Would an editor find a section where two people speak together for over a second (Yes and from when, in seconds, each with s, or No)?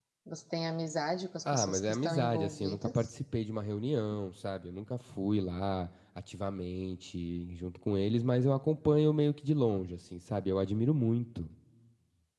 Yes, from 1.4 s